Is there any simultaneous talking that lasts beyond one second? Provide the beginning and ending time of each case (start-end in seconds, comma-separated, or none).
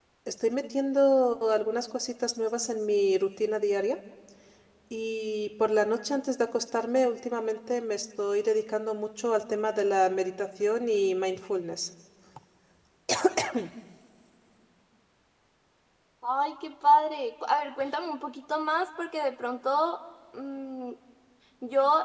none